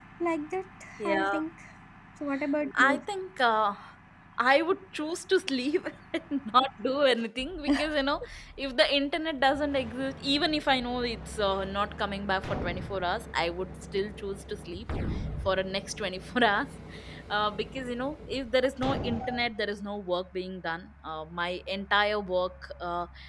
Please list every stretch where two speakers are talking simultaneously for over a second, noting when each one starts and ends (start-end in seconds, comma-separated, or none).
none